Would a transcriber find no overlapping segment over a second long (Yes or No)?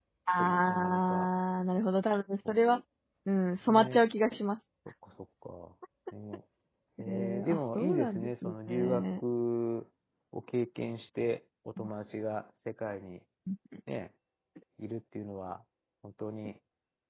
No